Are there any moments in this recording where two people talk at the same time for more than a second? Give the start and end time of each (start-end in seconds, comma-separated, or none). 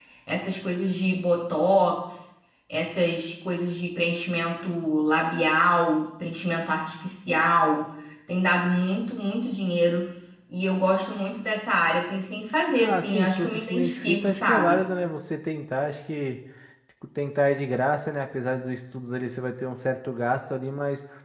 12.8-14.8